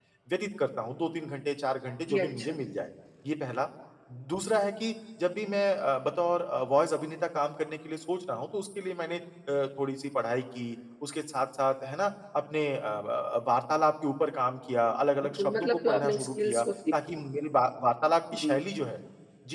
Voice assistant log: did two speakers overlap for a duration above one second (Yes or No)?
Yes